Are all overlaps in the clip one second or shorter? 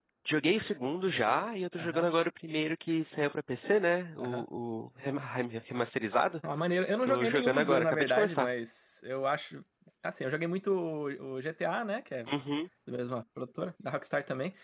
No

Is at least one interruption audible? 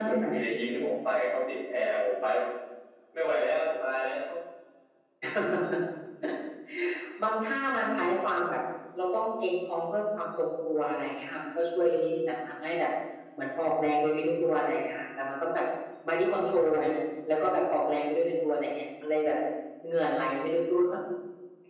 No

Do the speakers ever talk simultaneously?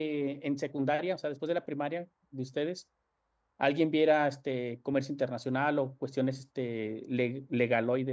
No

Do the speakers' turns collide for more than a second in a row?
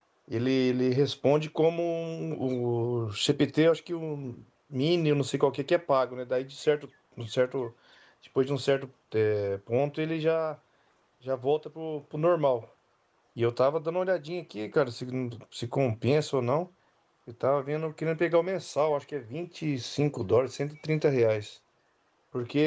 No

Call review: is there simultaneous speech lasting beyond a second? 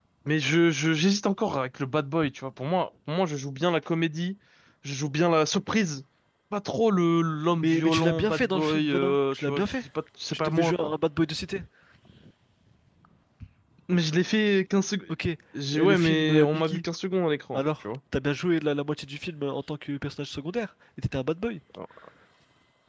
Yes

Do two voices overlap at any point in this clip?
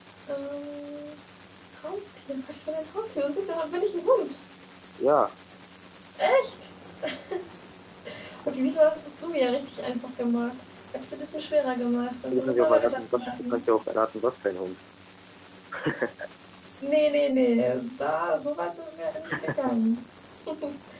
Yes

